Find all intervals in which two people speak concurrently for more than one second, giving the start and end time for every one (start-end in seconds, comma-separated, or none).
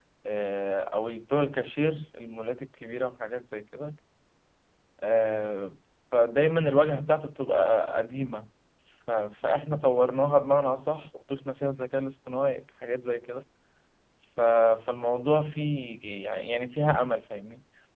none